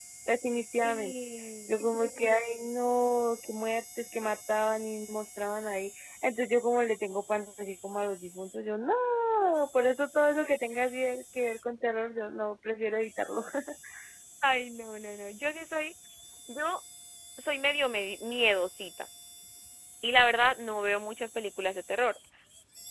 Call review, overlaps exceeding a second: none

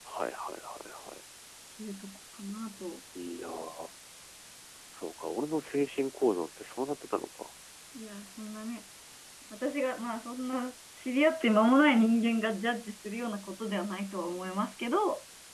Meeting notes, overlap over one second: none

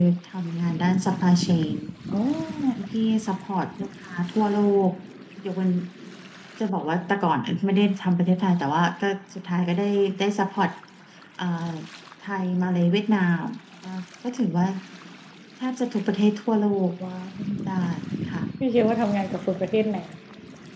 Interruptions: none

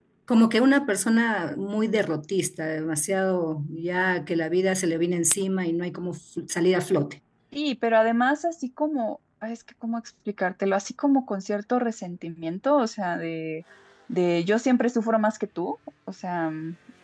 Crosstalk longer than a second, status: none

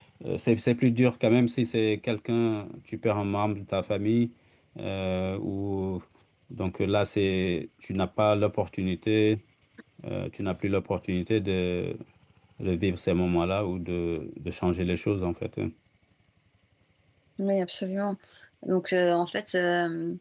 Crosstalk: none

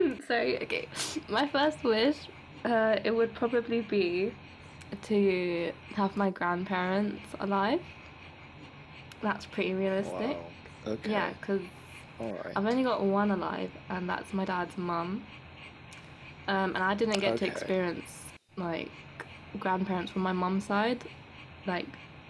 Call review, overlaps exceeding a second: none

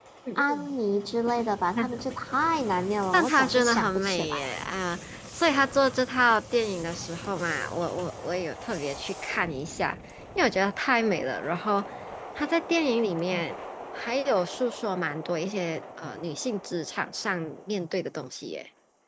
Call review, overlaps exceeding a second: present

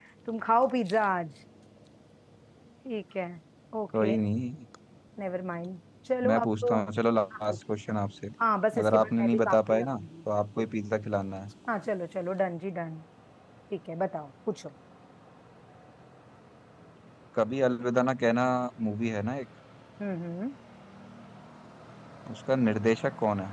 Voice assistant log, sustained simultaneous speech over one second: present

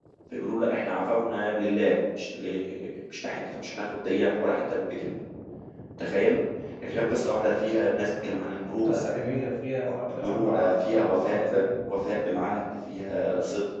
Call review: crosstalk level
present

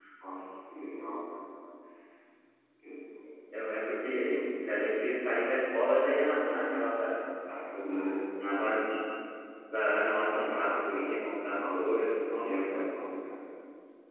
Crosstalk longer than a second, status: present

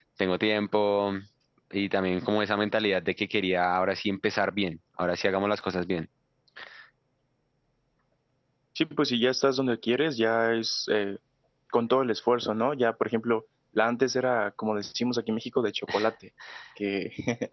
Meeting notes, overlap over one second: none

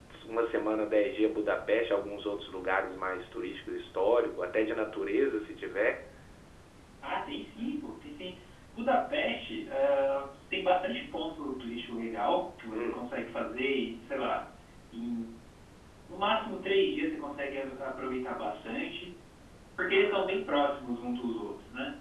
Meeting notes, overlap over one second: none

